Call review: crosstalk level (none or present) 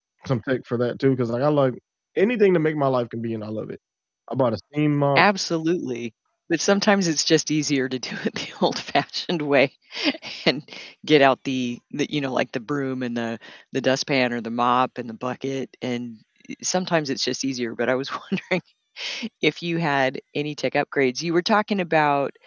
none